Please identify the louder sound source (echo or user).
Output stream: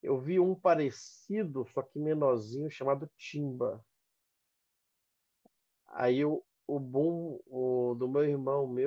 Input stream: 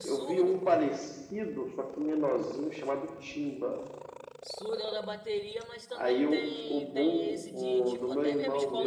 echo